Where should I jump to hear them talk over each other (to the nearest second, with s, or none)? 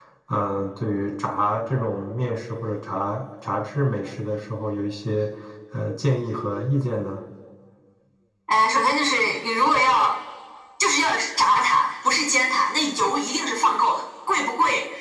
none